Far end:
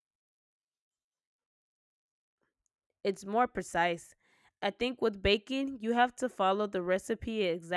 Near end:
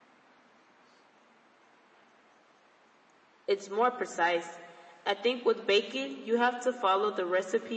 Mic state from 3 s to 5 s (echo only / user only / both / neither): echo only